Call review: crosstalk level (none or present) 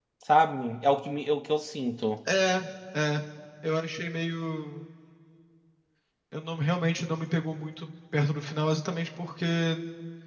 none